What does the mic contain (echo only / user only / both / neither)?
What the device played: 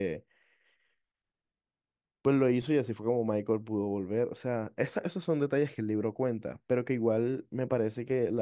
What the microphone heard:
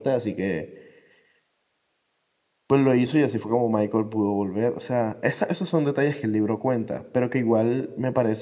echo only